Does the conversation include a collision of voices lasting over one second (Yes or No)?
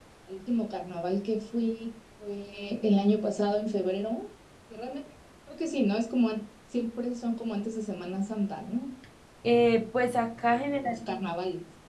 No